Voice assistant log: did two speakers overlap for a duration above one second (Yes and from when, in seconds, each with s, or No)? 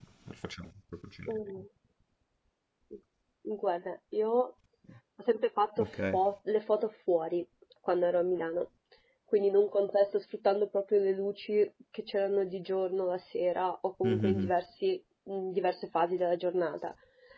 No